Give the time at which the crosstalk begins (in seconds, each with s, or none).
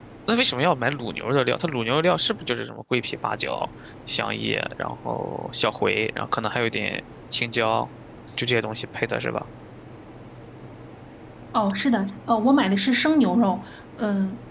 none